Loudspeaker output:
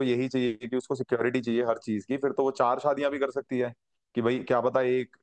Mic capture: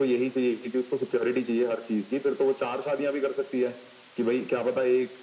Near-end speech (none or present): none